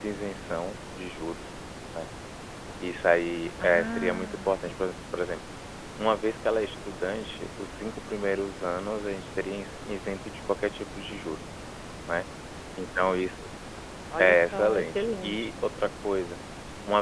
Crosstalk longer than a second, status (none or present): present